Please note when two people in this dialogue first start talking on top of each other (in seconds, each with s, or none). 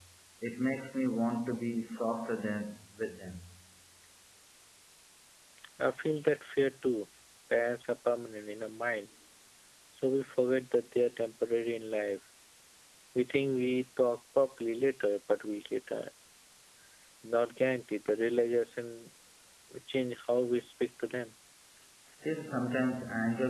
none